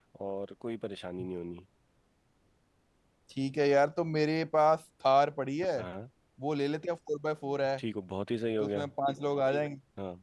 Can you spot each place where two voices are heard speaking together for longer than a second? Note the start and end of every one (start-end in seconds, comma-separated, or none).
none